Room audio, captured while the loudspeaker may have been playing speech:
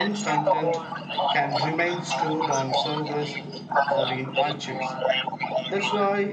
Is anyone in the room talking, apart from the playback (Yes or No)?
Yes